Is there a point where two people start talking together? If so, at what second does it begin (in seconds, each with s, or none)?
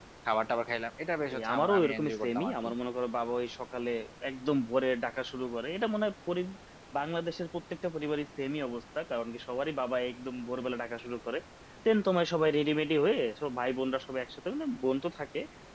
1.3 s